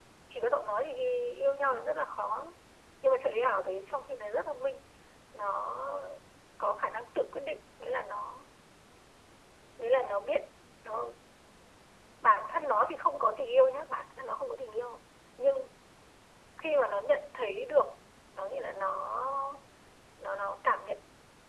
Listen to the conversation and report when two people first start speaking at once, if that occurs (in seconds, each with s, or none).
none